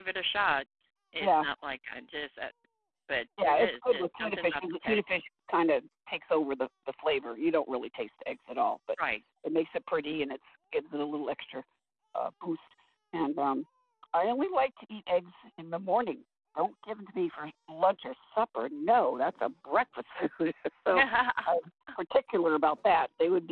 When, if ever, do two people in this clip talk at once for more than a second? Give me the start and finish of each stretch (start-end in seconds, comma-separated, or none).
3.4-5.0